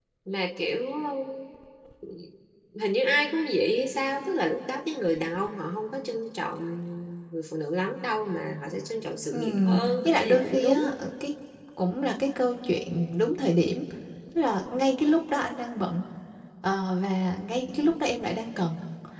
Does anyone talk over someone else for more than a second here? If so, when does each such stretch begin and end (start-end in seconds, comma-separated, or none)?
9.3-10.8